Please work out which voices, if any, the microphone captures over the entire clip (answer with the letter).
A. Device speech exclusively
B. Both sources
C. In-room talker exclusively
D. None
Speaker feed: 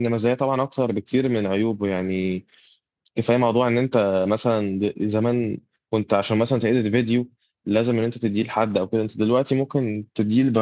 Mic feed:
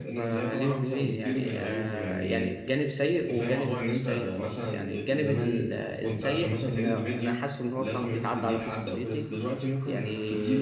B